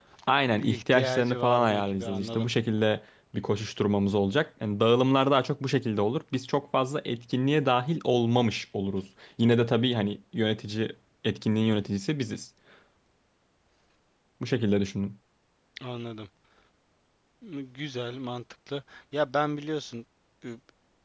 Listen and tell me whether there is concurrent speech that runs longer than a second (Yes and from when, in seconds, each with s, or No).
Yes, from 0.6 s